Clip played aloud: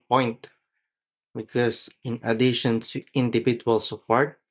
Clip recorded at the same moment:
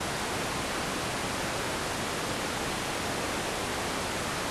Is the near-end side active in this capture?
No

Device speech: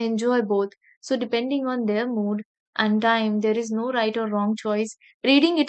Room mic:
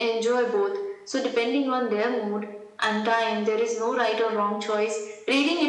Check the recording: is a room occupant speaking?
No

